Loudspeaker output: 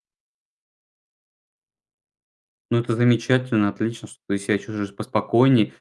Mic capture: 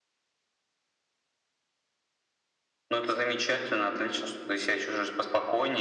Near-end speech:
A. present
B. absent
B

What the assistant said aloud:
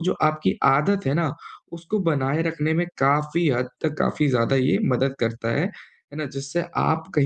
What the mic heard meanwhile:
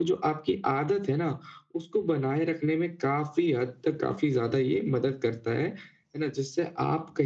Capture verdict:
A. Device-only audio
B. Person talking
A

